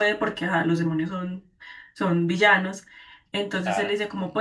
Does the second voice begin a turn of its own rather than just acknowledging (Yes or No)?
No